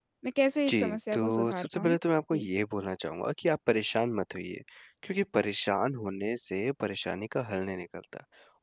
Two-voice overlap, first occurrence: 0.7 s

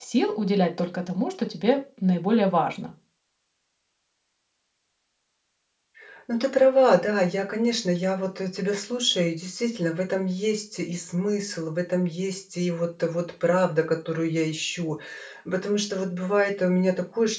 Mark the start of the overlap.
none

